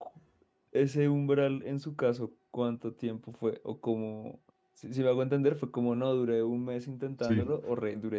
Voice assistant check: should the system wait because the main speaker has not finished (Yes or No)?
Yes